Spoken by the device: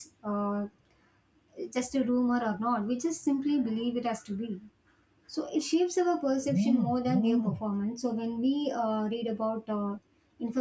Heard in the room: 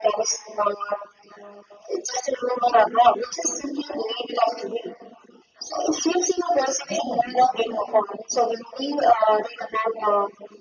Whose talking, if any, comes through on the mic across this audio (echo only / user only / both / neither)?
echo only